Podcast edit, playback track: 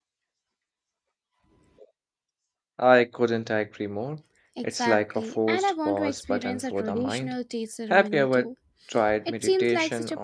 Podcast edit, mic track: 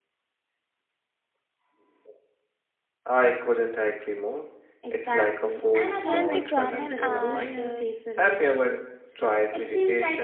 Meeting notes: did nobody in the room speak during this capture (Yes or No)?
No